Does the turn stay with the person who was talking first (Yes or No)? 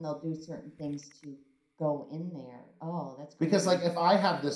No